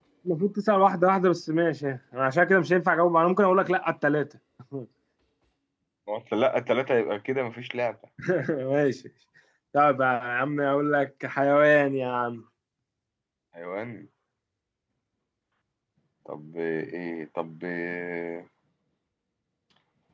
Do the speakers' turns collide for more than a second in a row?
No

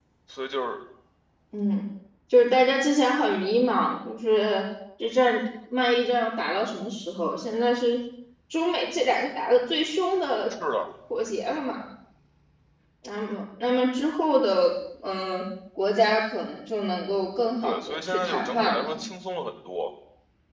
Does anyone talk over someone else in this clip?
Yes, from 17.6 s

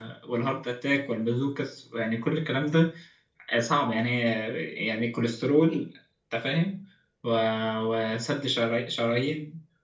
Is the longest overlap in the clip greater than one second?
No

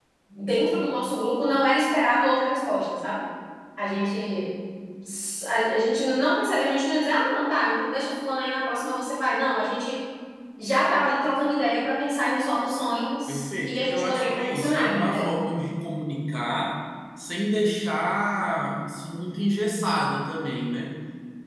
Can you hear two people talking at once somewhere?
Yes, from 13.3 s

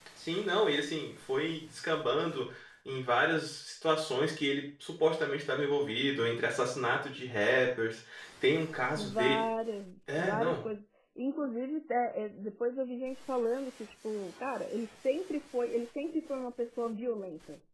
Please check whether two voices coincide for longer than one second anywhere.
No

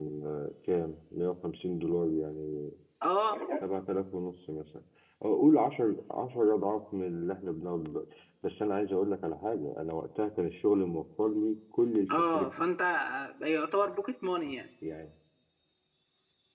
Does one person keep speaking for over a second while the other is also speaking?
No

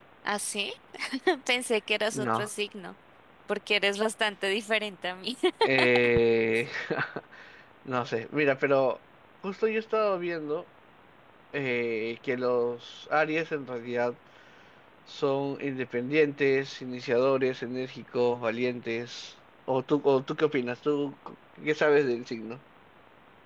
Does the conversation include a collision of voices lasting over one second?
No

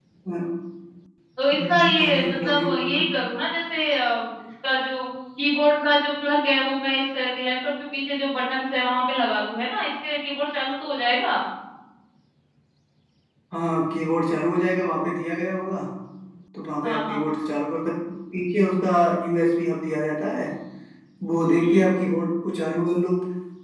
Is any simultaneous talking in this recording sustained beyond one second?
Yes, from 1.5 s

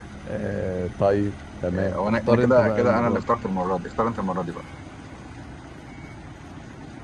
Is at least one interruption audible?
Yes, from 1.7 s

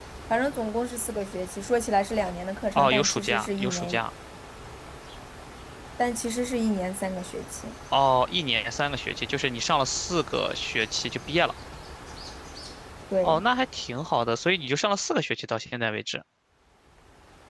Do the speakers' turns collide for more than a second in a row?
Yes, from 2.8 s

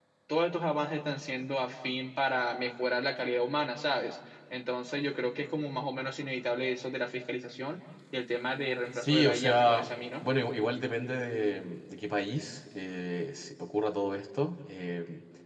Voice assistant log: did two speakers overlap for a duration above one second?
Yes, from 9.0 s

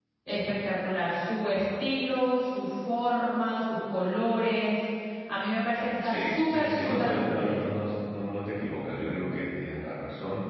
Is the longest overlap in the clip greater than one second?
Yes, from 6.0 s

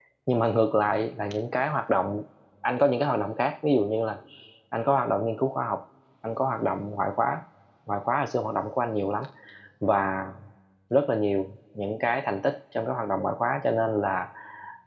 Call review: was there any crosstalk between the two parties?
No

